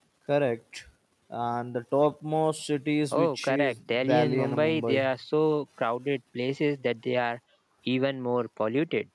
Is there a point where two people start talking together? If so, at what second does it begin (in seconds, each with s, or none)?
3.1 s